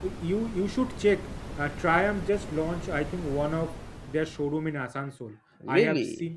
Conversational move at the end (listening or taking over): listening